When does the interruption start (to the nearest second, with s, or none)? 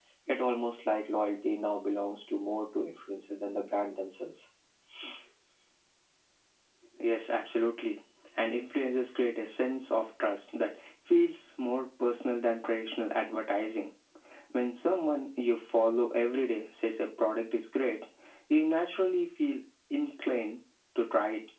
none